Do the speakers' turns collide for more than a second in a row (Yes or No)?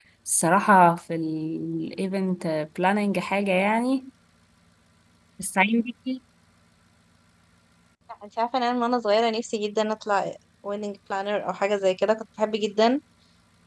No